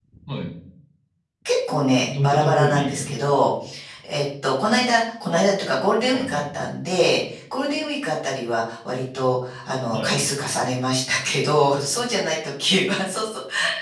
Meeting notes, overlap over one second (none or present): present